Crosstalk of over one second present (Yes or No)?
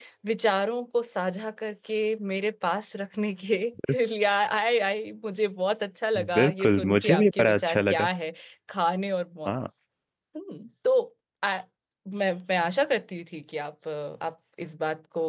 Yes